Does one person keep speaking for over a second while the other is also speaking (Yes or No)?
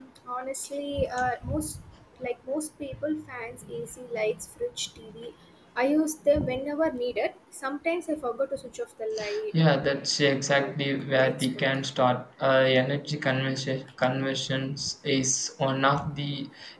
No